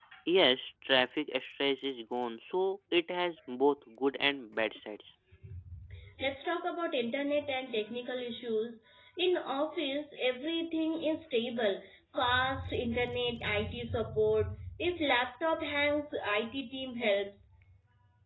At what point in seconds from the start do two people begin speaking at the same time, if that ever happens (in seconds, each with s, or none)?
none